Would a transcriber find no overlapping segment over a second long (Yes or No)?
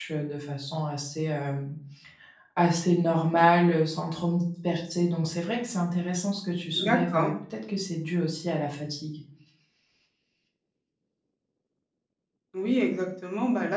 Yes